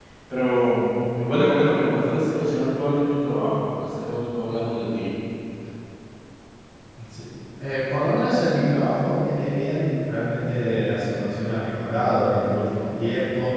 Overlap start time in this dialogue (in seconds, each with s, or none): none